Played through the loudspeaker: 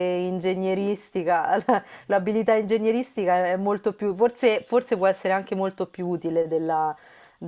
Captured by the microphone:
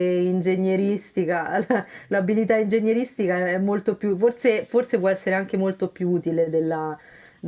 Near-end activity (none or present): none